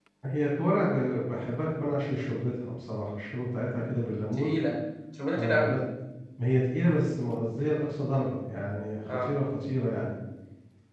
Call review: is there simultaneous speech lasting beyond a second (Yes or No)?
No